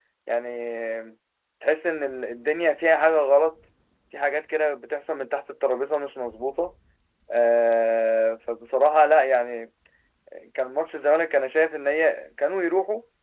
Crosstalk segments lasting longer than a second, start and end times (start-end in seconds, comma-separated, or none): none